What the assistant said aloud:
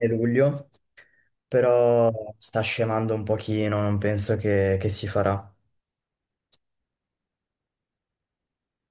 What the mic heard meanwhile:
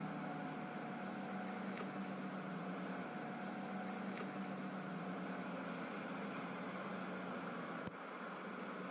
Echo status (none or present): none